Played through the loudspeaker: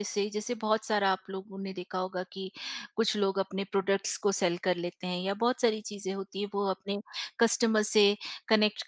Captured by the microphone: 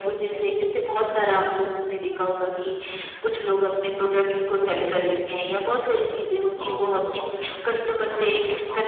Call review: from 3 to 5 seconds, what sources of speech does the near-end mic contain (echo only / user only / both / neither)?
echo only